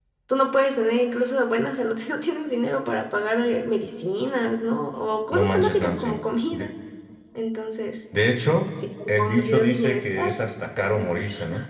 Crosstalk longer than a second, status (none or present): present